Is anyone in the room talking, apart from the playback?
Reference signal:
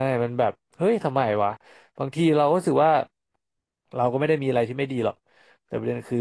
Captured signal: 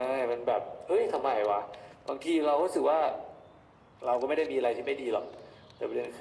No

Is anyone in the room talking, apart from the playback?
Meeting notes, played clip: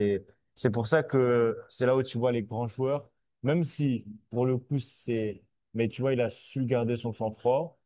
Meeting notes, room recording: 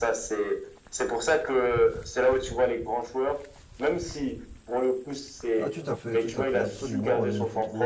Yes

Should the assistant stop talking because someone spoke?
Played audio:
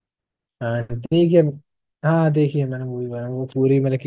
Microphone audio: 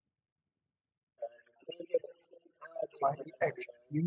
Yes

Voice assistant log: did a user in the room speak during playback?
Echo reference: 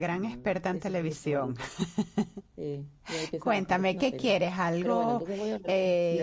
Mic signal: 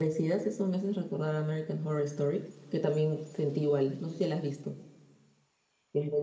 Yes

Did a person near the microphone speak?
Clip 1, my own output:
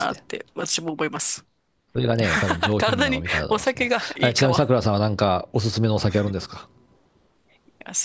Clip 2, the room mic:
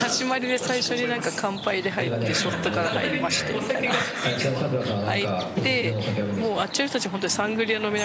Yes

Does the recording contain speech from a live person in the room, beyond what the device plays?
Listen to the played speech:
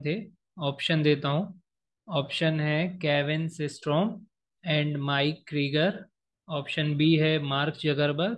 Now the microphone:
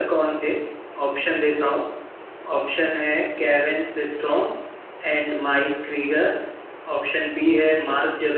No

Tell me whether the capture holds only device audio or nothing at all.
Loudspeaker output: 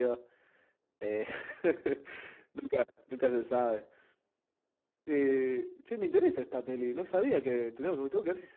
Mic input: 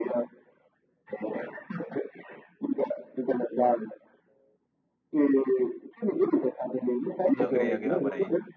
No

